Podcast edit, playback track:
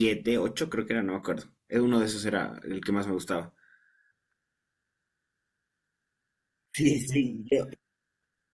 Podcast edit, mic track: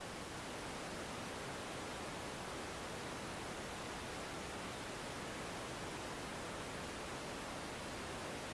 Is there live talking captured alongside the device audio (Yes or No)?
No